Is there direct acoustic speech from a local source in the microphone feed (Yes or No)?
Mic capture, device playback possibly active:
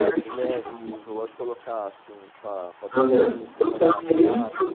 Yes